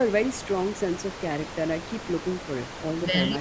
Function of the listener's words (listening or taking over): taking over